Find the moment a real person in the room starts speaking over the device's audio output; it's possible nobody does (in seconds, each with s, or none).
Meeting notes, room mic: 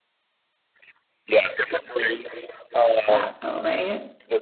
3.1 s